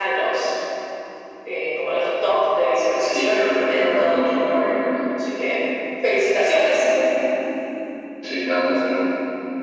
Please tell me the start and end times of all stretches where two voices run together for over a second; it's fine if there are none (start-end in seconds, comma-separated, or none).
3.0-4.3